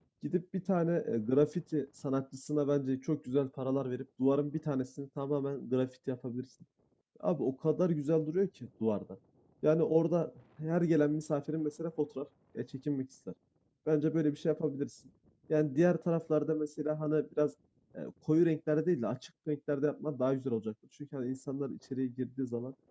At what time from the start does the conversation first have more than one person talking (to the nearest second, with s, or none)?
none